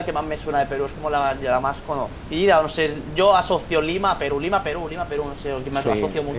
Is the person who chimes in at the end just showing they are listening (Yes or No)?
No